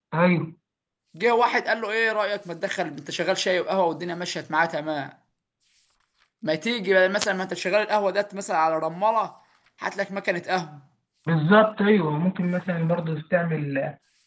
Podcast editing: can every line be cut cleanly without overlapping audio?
Yes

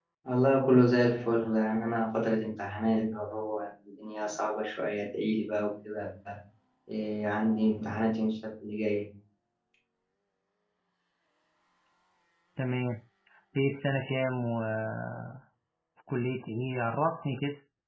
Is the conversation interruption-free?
Yes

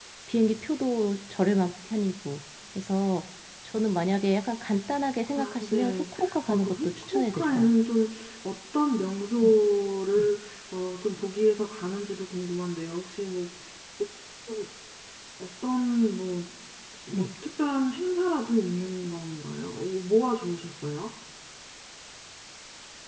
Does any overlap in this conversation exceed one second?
Yes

